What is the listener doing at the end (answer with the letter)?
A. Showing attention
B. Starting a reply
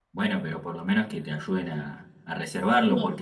A